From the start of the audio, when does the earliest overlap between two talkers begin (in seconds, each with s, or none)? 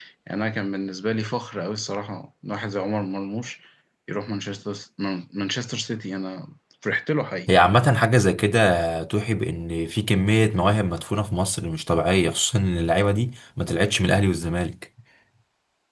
none